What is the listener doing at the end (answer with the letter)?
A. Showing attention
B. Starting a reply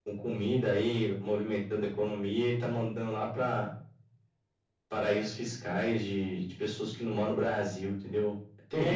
B